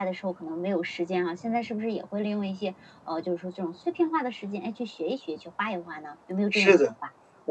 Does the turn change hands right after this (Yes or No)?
Yes